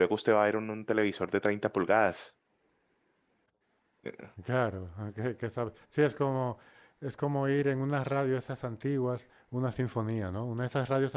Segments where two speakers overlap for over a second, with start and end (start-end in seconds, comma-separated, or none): none